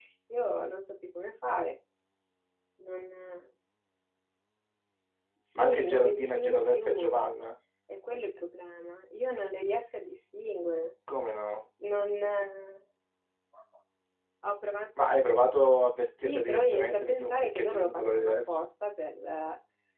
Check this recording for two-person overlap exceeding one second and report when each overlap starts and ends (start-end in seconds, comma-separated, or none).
5.6-7.2, 16.2-18.6